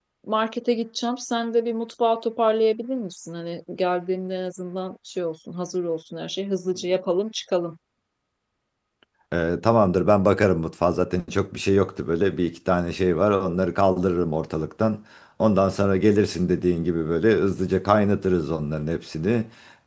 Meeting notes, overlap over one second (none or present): none